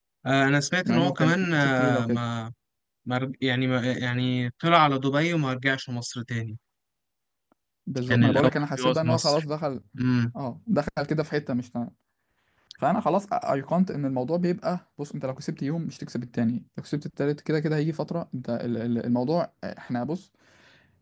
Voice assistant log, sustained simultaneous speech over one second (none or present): present